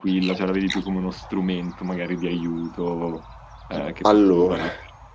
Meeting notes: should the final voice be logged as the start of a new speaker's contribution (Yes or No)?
Yes